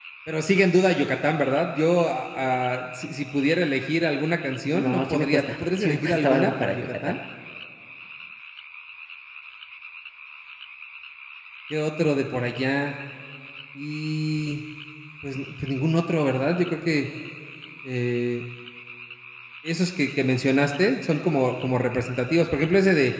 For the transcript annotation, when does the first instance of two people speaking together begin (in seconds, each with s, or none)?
4.7 s